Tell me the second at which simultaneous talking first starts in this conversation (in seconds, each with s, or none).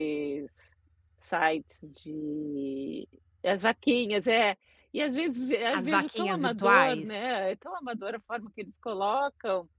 5.7 s